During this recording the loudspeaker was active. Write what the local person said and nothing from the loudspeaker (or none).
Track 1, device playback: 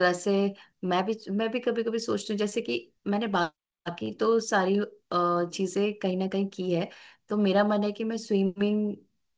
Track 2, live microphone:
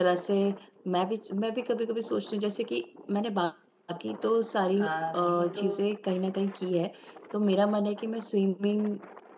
हाँ जी ये तो